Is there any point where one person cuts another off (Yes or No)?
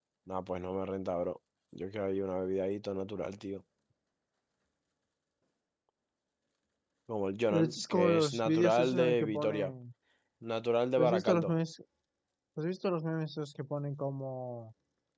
Yes